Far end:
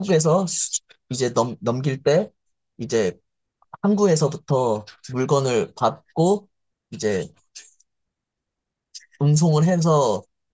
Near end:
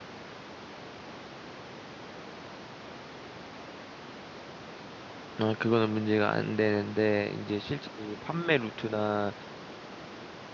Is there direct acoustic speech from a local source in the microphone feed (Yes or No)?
Yes